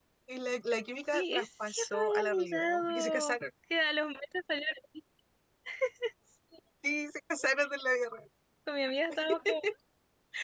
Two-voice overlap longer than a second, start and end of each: 1.1-3.4

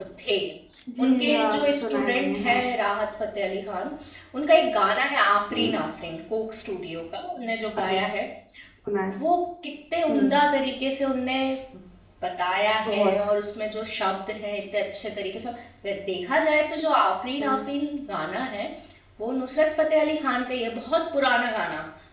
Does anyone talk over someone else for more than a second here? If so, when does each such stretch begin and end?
1.0-2.6

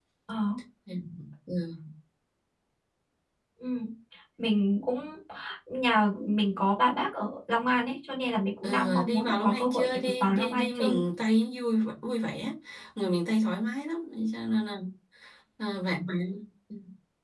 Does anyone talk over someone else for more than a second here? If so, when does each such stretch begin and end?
8.6-11.0

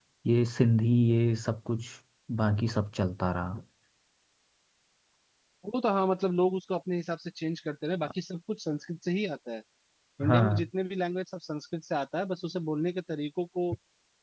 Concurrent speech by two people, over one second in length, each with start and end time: none

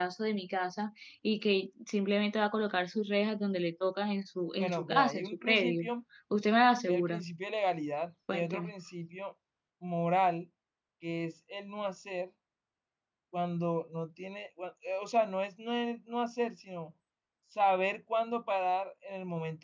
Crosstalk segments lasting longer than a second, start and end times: 4.6-5.8

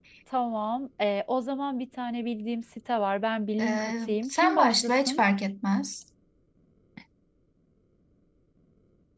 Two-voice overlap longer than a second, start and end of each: 3.6-5.2

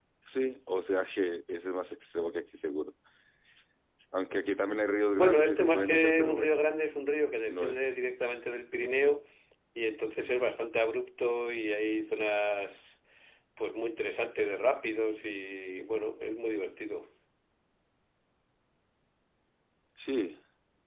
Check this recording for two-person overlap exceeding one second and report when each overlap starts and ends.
5.2-6.6

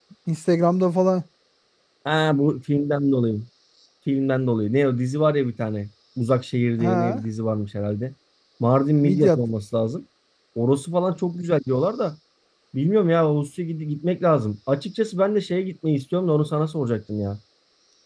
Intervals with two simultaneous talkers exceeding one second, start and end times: none

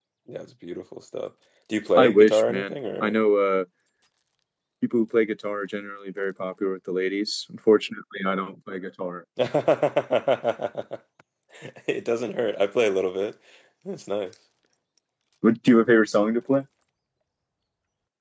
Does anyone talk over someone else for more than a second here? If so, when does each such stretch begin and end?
2.0-3.2

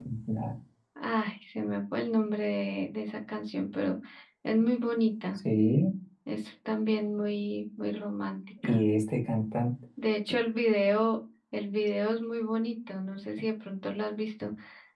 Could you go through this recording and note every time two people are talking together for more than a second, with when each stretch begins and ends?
none

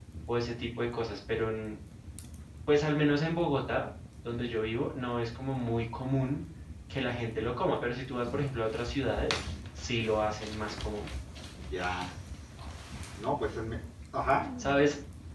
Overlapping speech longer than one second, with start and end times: none

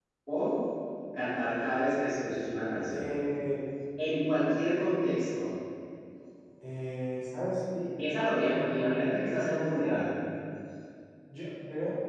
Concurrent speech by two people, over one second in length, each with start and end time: none

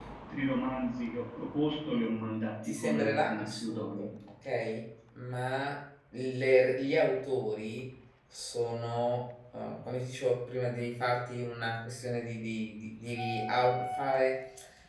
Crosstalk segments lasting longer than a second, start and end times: 2.7-4.1

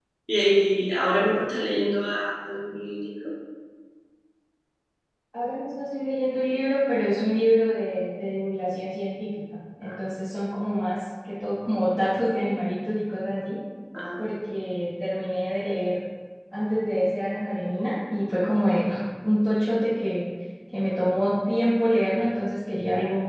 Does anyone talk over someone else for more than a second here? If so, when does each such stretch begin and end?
none

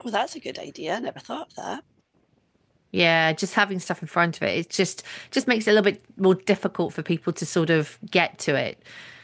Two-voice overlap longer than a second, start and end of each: none

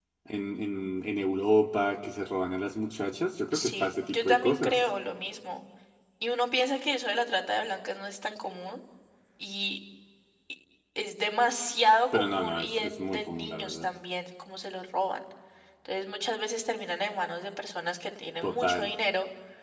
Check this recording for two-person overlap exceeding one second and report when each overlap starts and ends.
3.5-4.7, 12.1-13.9

